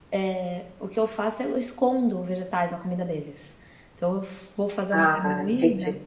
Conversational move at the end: listening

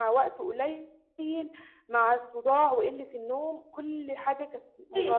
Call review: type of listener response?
taking over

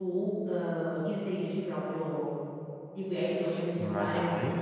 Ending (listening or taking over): listening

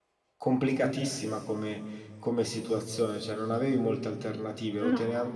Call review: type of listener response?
listening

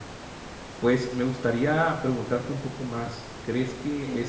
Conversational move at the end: listening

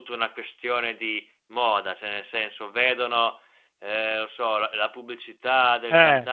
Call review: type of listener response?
listening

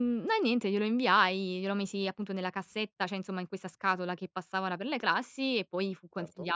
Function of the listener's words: listening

